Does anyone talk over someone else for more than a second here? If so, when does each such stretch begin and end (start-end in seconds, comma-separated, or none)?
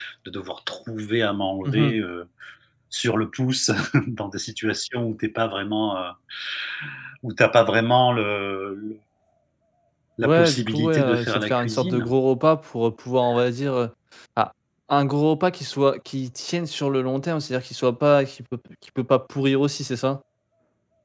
10.2-12.1